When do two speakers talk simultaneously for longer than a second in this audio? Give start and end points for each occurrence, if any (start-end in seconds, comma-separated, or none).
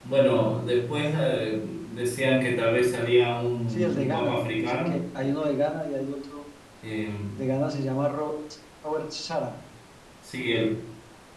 3.7-5.0